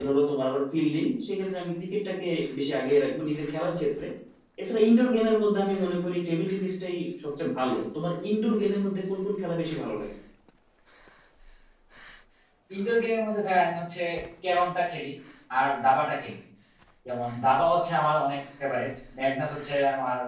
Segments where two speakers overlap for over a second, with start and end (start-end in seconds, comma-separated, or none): none